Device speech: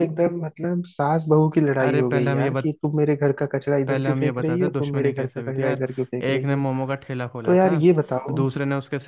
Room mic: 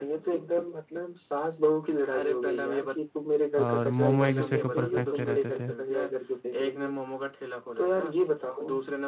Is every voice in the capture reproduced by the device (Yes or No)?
No